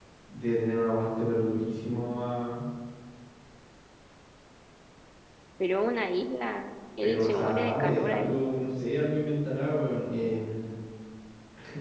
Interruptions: present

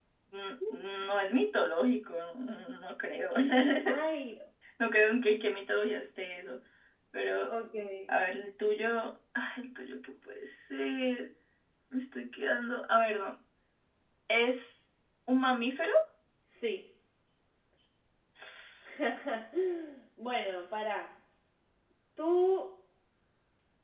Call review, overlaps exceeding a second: none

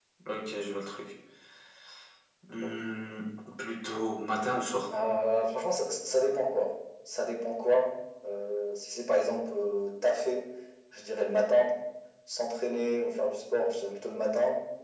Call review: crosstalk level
none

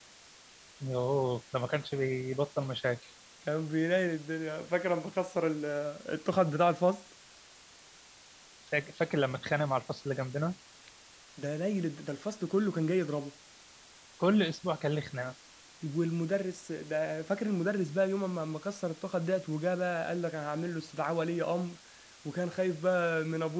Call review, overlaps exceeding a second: none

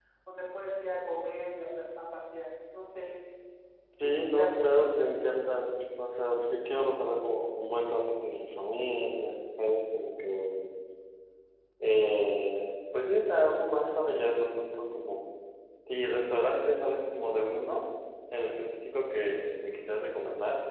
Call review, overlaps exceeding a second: present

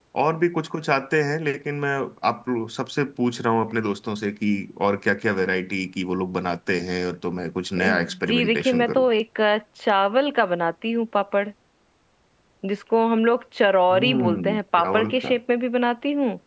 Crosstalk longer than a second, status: present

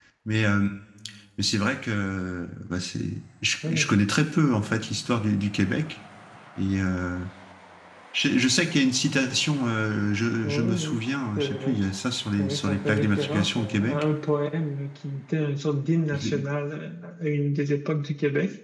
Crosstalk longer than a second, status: present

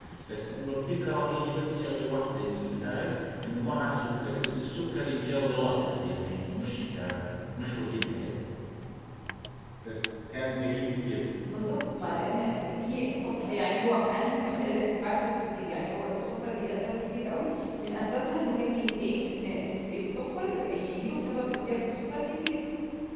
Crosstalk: none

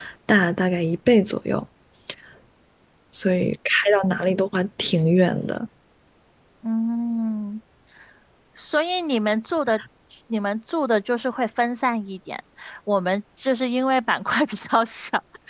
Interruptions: none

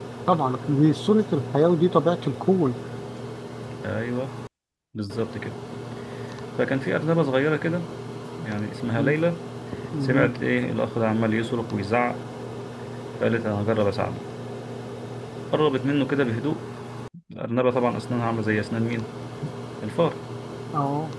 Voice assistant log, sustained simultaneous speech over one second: none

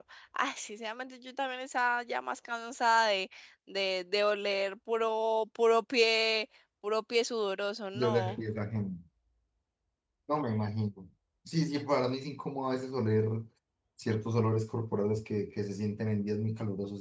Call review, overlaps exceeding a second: none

